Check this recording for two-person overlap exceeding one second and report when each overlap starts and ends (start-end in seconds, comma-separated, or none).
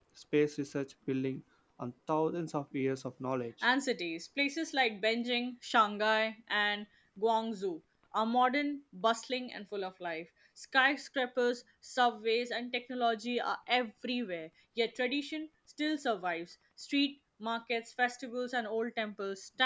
none